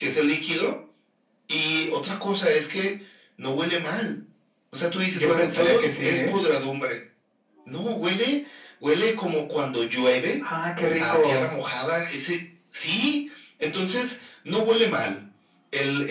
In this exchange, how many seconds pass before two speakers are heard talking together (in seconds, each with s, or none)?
5.1 s